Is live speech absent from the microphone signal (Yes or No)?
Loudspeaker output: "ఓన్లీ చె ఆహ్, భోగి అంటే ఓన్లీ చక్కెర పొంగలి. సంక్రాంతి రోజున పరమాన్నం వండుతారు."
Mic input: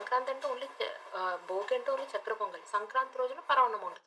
Yes